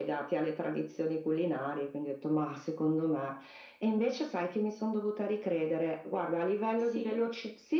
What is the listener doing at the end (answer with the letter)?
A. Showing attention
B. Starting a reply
A